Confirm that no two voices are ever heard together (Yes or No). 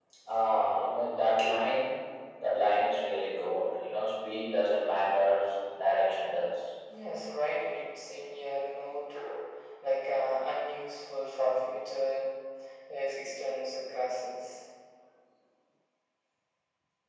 Yes